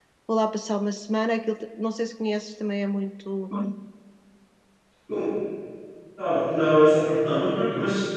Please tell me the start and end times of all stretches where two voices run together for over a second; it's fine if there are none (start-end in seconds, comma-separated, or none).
none